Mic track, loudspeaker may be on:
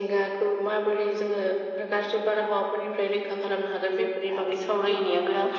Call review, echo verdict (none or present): present